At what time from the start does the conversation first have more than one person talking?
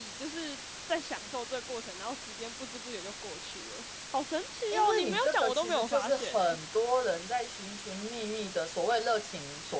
4.7 s

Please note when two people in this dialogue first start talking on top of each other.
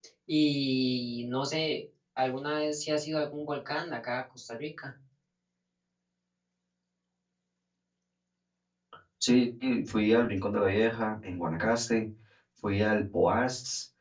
none

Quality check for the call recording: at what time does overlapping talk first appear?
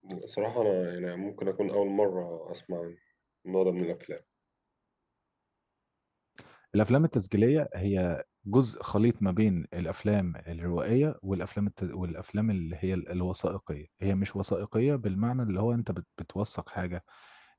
none

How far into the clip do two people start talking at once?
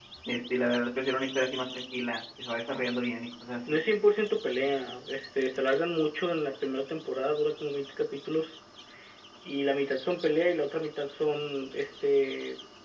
none

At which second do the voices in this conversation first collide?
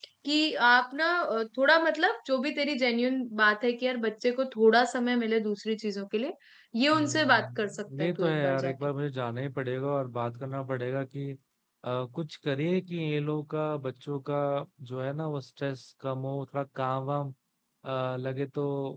6.9 s

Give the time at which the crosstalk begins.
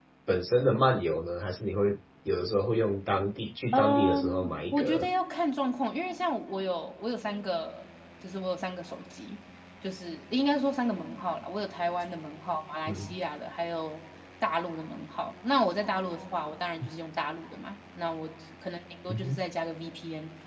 3.7 s

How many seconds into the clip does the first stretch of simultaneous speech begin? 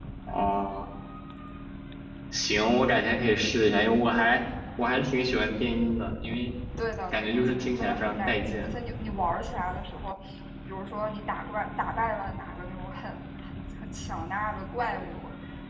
7.1 s

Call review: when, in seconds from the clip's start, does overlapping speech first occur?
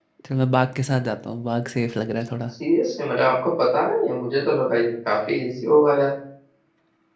none

